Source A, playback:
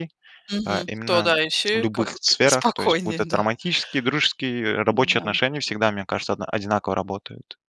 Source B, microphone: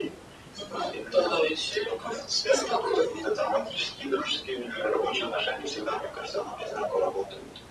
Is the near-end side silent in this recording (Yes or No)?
Yes